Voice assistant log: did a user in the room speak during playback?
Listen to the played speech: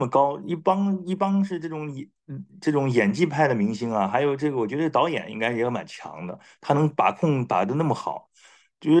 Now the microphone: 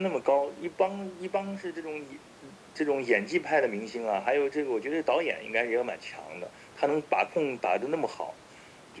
No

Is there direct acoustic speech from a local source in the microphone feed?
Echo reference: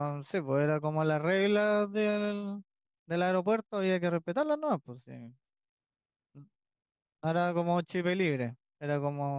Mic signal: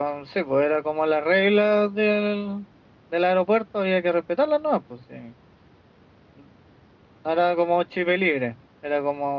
No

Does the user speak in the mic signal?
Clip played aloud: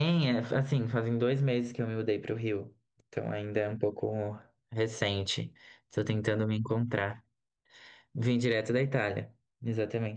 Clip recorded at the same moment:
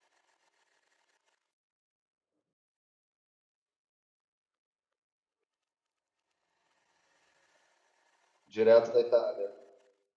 Yes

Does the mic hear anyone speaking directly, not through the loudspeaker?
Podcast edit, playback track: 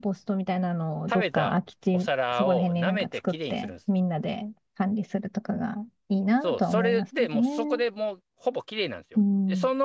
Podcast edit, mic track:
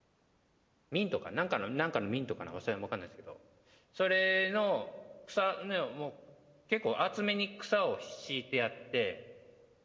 Yes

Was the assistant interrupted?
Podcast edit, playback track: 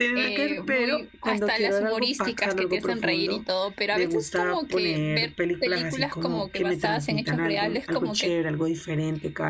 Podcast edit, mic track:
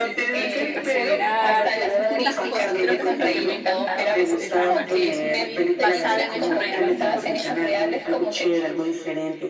Yes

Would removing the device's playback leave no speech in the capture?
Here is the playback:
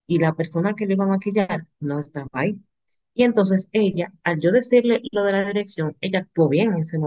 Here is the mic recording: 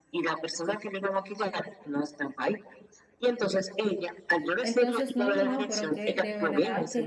No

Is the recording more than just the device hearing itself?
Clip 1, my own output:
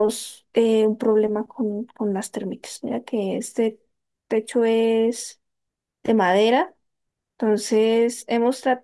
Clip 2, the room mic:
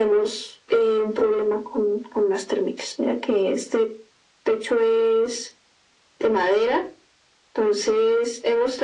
No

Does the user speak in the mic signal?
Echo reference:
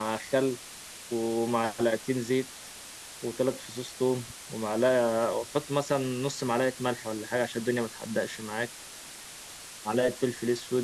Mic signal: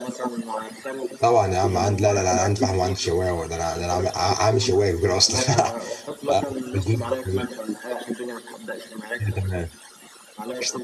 Yes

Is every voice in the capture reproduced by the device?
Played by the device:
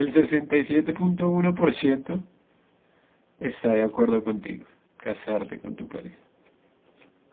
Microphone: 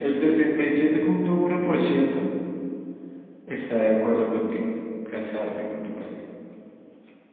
Yes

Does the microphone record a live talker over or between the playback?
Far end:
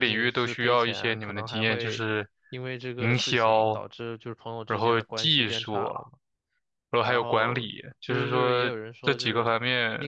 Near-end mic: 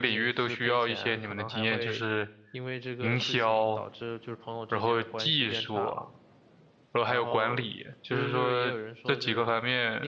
No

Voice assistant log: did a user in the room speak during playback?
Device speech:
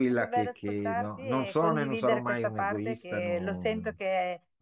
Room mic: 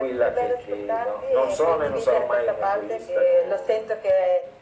No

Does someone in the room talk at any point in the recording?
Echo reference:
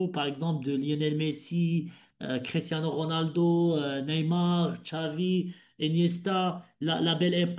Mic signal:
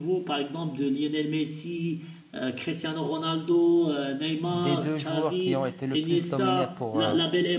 Yes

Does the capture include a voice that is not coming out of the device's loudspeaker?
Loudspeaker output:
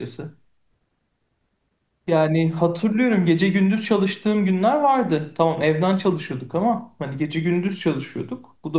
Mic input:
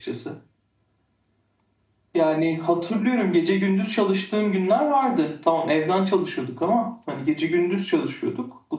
No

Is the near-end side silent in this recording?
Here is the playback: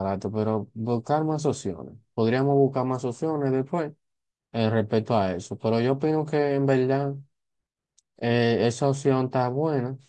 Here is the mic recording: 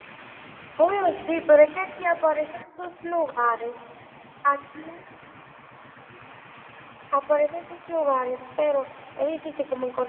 No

